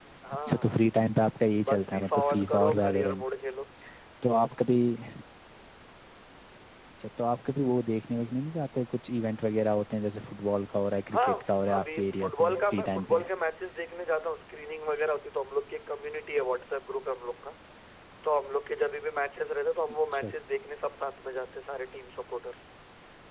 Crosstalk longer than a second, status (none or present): present